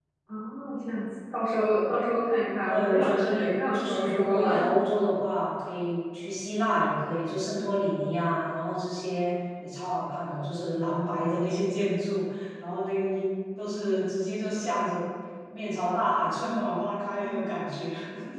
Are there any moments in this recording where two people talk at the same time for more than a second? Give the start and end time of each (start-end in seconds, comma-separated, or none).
2.7-4.5